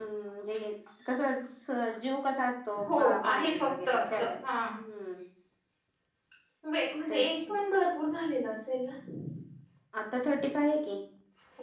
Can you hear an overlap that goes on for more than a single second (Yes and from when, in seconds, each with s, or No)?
Yes, from 2.8 s